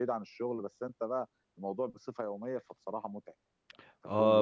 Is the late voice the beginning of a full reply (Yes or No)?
Yes